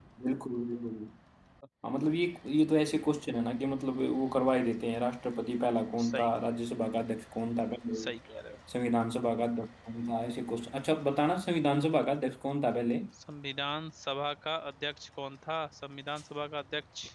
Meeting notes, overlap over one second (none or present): none